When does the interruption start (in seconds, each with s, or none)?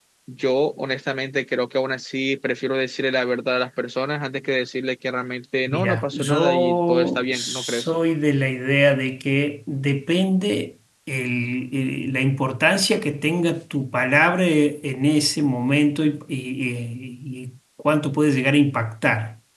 5.7 s